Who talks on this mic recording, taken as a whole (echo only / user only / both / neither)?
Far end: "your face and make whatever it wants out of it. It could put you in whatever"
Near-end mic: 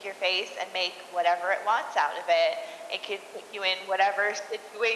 echo only